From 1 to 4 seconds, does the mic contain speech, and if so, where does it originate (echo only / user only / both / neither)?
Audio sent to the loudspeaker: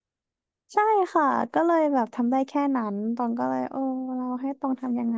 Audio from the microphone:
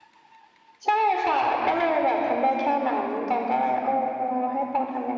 echo only